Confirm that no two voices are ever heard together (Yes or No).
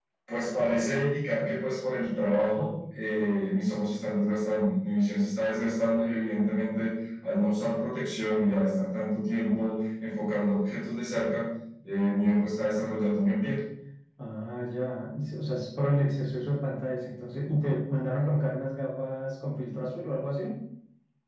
Yes